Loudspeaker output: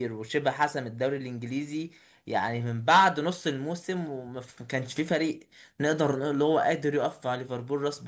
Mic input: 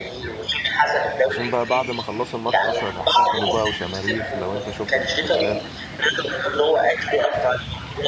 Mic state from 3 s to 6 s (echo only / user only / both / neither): both